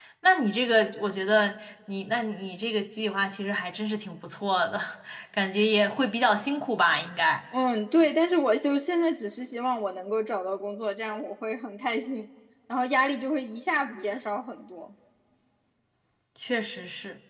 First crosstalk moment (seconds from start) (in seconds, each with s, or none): none